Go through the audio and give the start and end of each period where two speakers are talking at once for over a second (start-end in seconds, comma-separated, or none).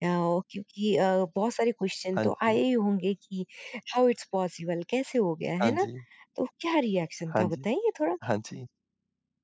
none